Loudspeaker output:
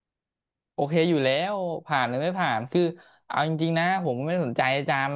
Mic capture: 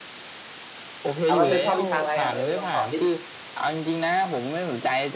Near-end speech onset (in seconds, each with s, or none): 1.2 s